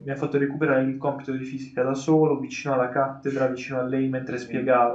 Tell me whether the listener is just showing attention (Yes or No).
Yes